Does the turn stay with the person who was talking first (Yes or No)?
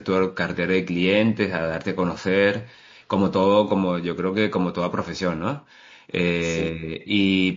Yes